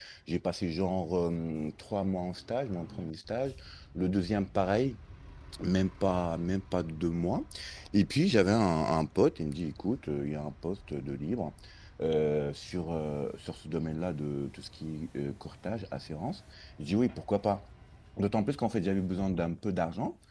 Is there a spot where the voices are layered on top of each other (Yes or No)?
No